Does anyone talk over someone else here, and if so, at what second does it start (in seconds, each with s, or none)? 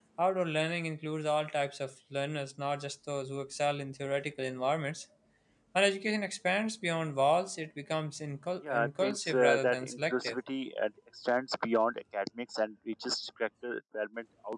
8.6 s